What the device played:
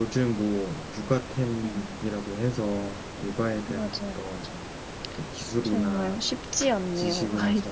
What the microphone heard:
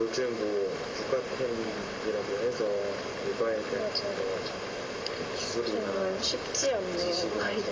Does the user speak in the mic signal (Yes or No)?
No